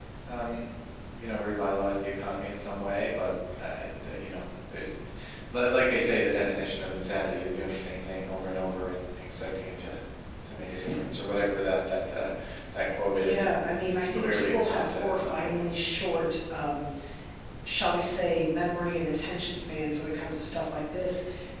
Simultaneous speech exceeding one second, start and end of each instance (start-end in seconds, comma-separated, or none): 13.1-15.7